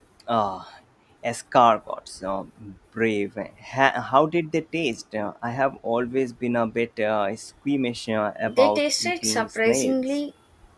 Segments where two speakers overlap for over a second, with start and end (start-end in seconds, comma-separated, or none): 8.5-10.0